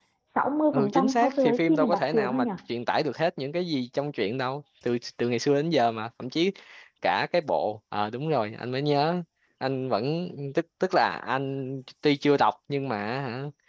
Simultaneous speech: Yes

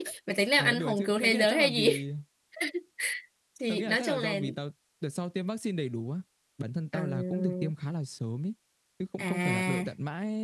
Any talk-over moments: Yes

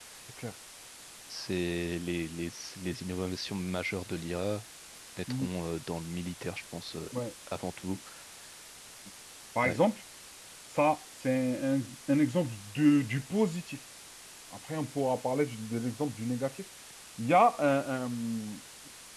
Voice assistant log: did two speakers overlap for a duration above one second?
No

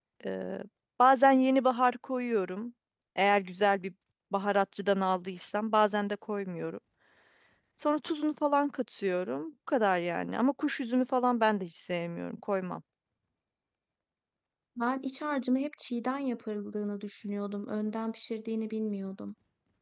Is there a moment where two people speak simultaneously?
No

